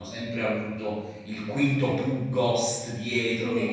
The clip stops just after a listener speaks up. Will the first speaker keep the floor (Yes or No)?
Yes